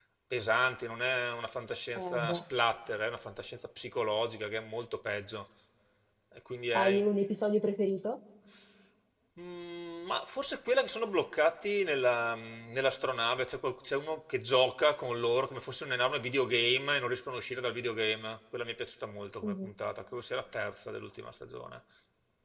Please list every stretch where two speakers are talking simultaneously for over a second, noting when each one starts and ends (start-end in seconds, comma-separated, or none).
none